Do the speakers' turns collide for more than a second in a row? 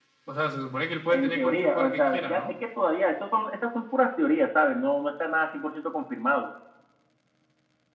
Yes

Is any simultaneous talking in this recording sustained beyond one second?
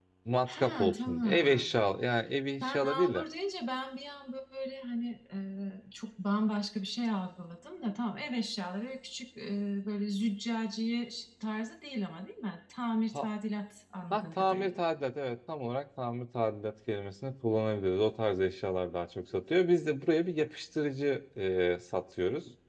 Yes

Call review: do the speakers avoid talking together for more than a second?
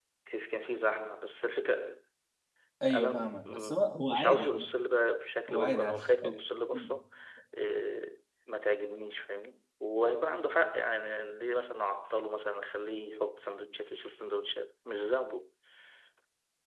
No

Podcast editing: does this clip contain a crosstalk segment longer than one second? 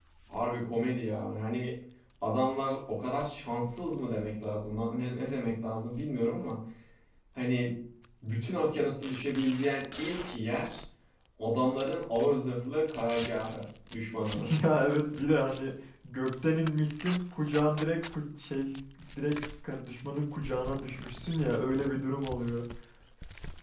No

